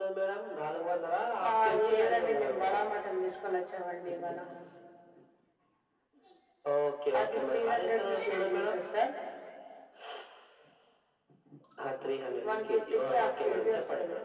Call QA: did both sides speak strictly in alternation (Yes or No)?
No